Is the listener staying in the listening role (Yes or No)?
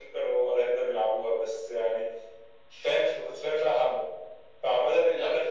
Yes